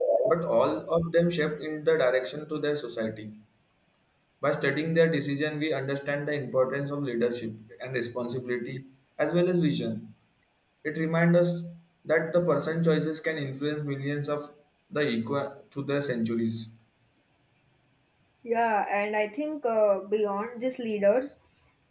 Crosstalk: none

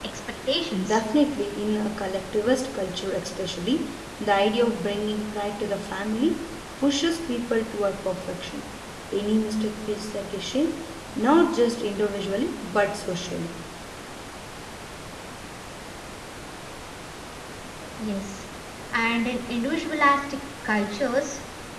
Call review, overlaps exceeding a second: none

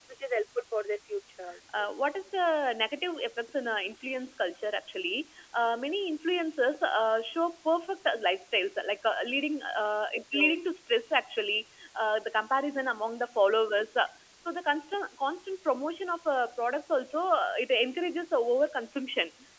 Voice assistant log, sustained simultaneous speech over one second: none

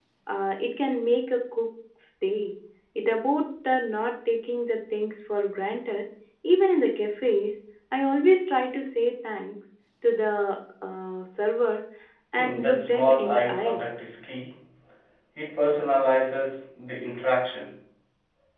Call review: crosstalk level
present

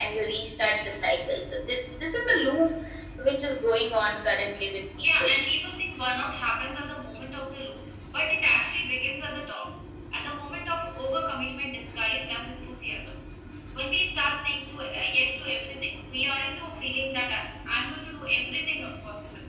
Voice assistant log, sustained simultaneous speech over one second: none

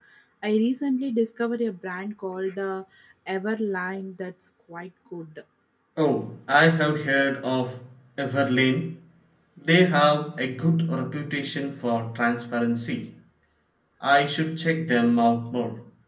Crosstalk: none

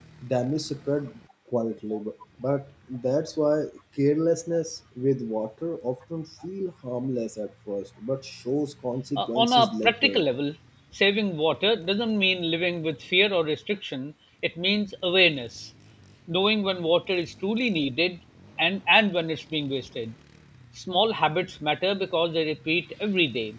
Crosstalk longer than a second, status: present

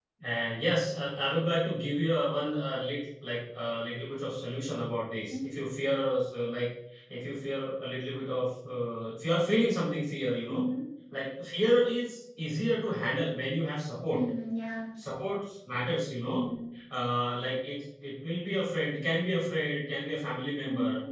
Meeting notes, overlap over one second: none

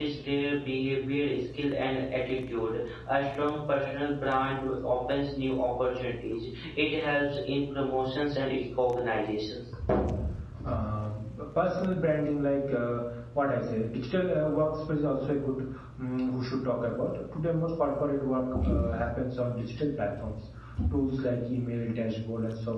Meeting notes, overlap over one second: none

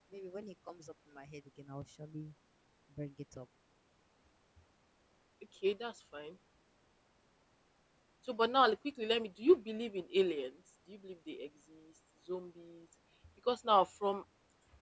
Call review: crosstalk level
none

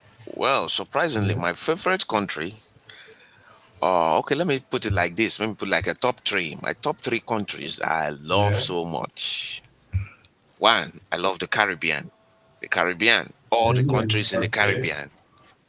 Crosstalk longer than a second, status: present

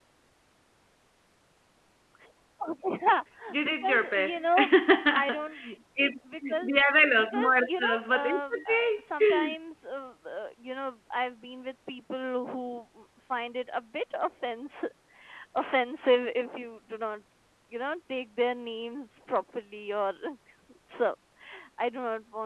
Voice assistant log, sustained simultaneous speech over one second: present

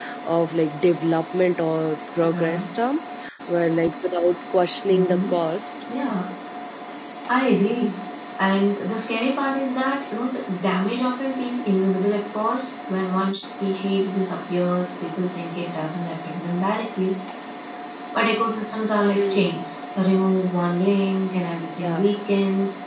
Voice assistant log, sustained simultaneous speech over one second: none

